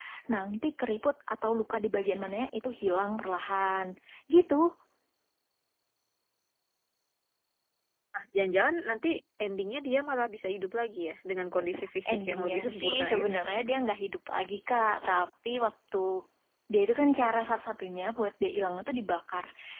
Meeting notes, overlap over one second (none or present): present